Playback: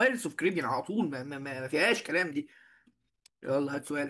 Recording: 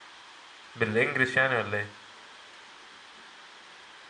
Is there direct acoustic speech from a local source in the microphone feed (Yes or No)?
Yes